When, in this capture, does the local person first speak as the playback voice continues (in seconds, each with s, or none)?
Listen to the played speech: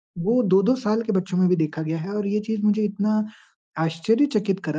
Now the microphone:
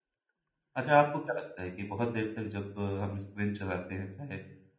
0.8 s